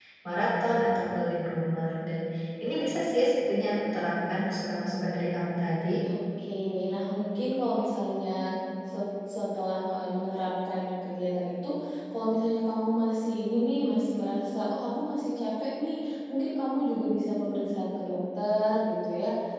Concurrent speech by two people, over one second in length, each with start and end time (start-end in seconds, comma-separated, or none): none